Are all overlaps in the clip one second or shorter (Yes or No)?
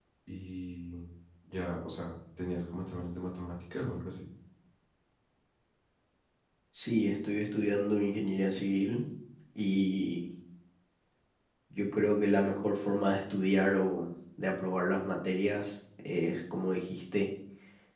Yes